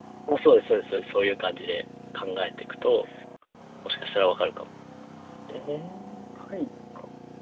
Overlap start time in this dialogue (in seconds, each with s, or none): none